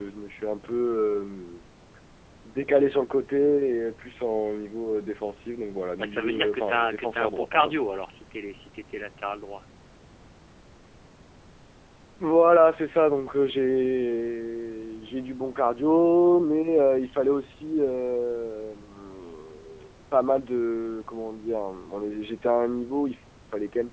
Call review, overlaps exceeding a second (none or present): present